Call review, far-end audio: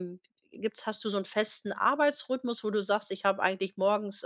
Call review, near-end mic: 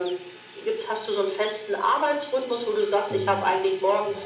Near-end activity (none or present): present